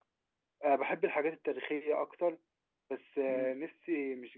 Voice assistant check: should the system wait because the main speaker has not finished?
Yes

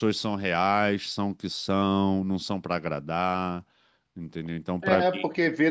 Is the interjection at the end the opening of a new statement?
Yes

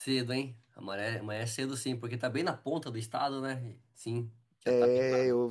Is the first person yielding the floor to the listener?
Yes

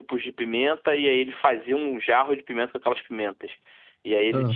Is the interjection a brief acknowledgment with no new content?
Yes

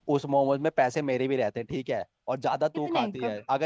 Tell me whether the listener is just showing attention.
Yes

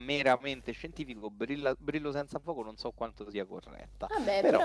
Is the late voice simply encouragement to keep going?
No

